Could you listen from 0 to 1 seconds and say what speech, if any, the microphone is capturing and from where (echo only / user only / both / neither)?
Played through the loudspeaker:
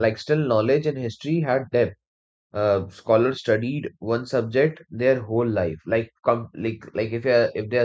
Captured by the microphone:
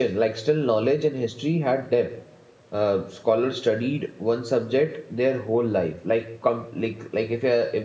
echo only